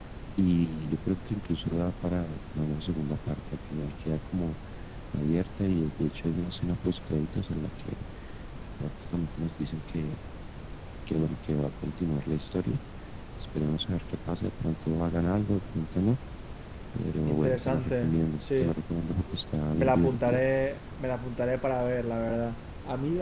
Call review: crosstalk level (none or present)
present